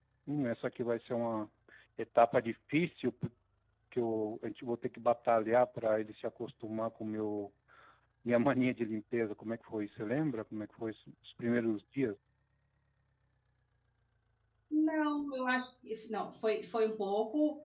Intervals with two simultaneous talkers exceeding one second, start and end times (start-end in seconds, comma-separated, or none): none